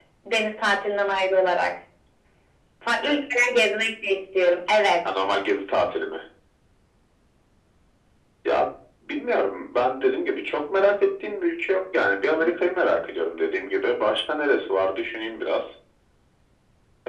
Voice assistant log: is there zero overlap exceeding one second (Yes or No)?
Yes